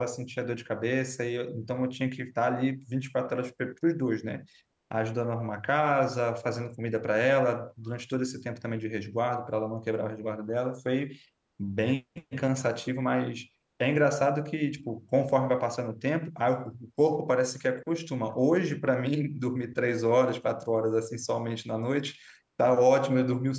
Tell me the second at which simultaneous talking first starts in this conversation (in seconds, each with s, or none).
none